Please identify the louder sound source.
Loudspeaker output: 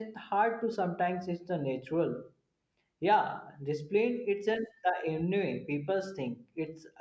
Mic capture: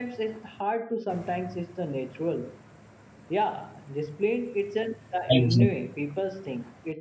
user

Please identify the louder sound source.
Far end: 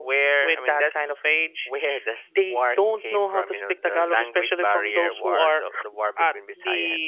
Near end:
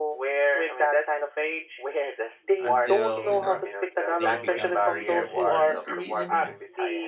echo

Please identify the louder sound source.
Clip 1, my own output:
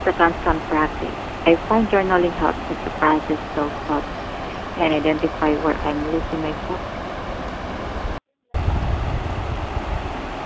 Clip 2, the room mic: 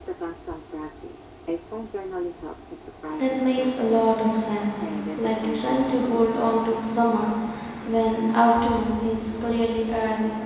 user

